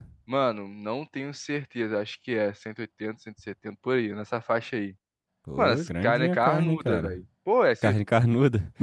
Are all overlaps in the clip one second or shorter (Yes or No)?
No